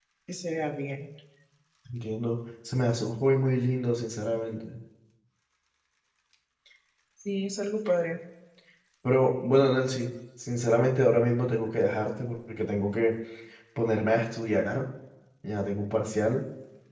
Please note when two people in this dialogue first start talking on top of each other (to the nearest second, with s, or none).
none